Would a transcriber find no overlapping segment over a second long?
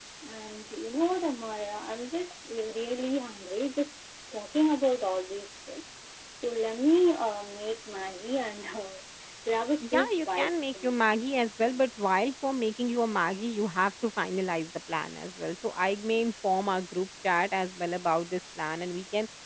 No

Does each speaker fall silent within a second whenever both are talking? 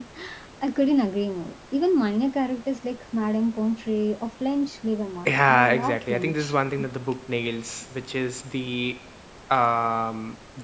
No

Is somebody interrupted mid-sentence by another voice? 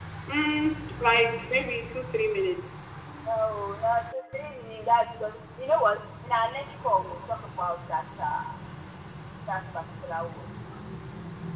No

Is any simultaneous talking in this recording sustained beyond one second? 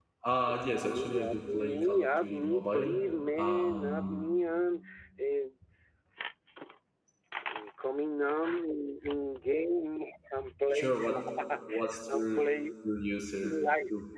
Yes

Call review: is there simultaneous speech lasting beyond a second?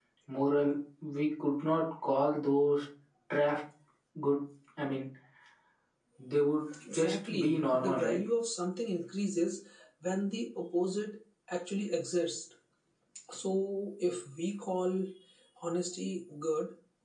Yes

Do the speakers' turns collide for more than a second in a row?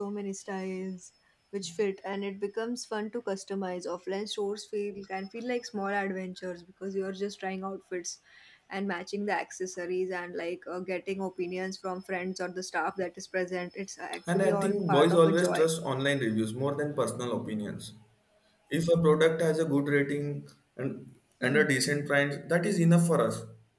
Yes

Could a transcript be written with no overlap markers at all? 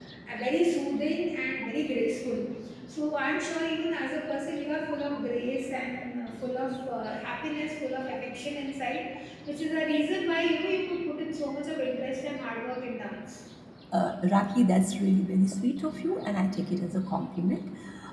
Yes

